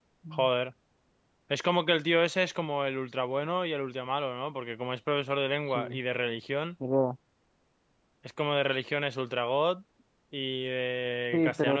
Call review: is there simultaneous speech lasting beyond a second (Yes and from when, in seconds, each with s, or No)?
No